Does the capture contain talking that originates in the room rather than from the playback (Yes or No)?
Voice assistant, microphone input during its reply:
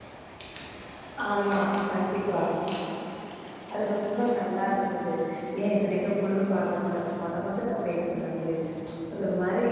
Yes